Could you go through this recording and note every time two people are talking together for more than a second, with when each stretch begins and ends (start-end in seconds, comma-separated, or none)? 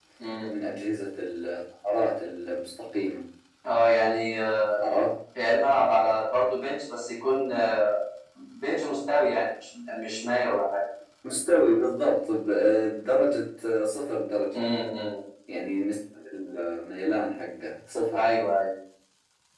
none